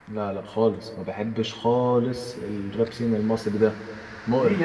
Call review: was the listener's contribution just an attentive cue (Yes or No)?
No